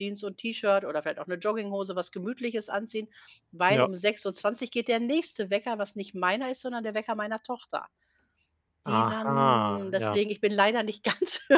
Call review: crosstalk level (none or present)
present